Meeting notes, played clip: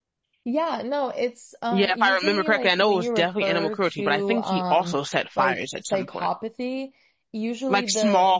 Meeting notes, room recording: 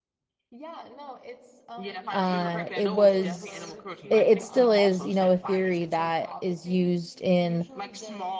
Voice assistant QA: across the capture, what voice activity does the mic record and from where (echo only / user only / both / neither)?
both